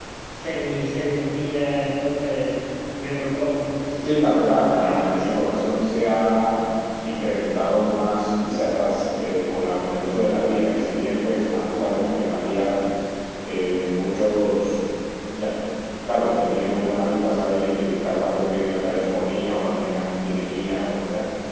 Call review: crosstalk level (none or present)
present